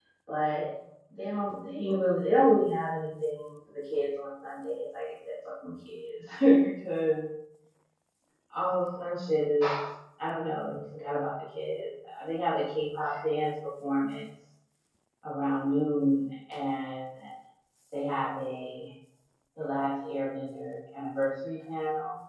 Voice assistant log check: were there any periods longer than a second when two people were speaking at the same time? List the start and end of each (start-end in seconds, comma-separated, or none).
none